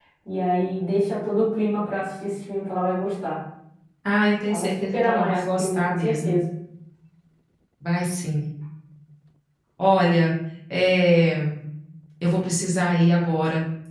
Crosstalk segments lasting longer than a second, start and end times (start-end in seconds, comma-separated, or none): 4.5-6.4